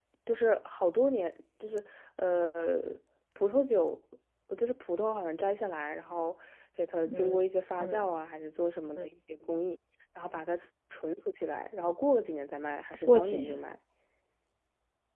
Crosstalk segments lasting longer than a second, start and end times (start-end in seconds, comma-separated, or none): none